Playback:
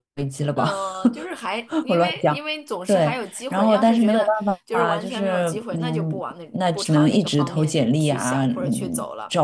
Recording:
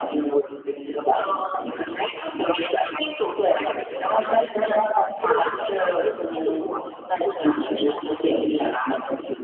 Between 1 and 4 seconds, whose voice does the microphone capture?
echo only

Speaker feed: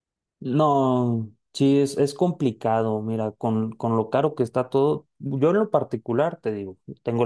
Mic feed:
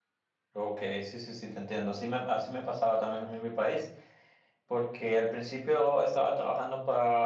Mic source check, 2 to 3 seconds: user only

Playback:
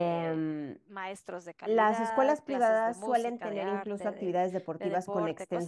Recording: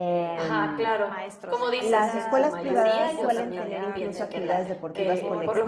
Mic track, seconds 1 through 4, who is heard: both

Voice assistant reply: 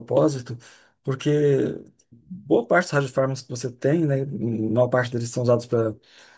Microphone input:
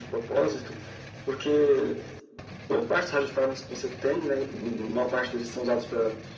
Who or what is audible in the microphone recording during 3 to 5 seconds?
echo only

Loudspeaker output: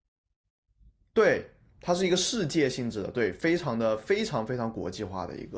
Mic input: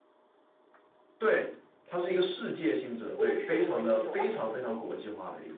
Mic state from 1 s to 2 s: echo only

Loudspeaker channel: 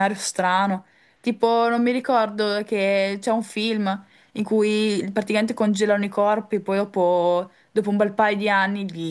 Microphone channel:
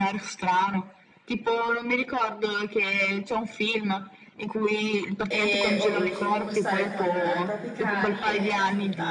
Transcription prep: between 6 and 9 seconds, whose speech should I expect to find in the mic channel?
both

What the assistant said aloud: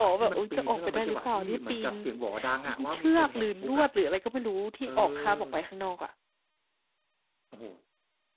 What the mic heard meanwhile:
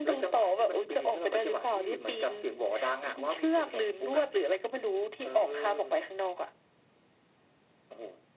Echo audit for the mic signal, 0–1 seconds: echo only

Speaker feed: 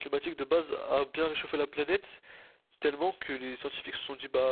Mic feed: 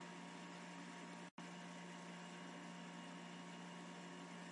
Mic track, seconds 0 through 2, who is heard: neither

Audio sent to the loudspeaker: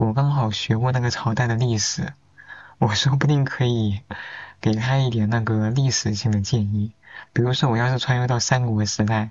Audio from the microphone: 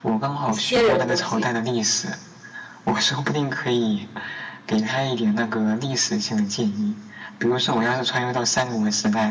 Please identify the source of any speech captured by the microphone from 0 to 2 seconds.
both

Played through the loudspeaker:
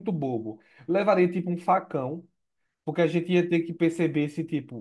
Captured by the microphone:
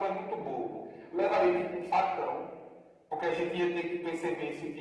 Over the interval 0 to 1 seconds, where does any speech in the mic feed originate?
echo only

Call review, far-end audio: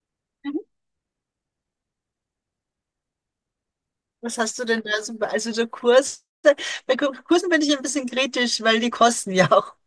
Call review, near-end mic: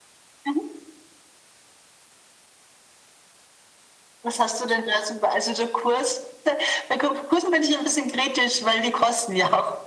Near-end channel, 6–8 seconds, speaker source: echo only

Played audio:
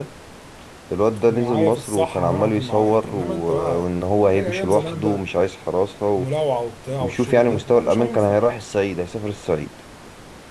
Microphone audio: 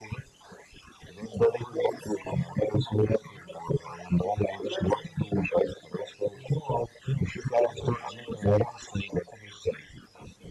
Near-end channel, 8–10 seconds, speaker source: echo only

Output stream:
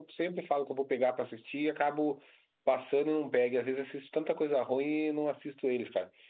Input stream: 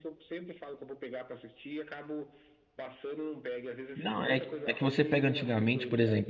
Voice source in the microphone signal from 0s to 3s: echo only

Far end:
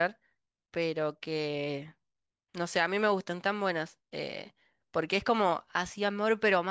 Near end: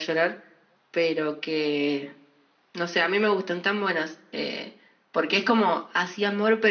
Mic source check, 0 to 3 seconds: echo only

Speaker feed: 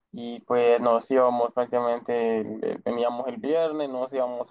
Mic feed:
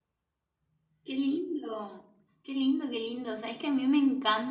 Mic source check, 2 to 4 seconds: user only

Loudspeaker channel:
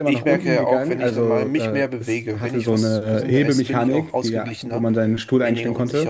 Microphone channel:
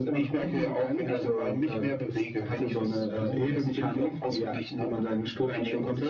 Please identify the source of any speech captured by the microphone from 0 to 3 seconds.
echo only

